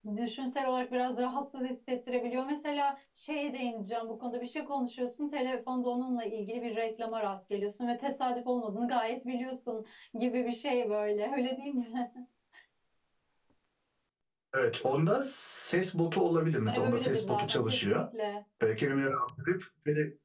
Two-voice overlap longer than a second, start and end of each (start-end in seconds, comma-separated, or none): 16.7-18.0